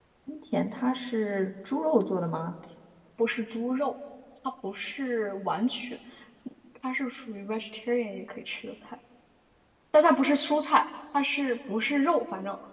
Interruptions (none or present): none